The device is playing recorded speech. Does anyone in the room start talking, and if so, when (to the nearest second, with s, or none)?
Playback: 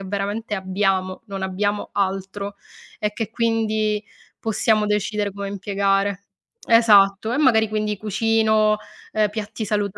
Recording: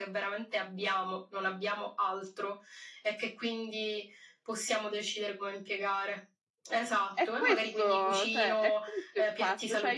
7 s